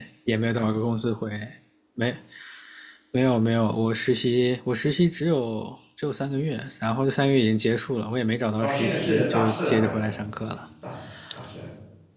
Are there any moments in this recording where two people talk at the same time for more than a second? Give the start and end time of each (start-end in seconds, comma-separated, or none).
8.6-10.6